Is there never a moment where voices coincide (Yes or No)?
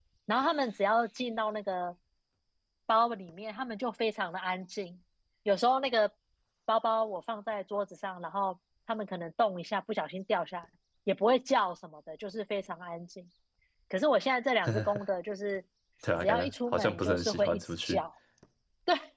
No